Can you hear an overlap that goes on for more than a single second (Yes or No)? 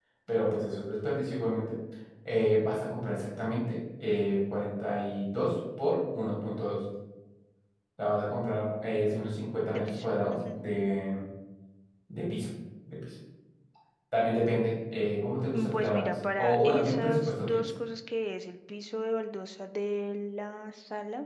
Yes